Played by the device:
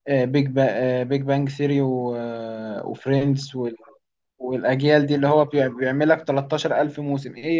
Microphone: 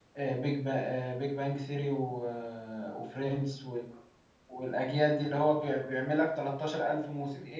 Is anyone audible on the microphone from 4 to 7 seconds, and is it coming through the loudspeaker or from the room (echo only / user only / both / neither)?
echo only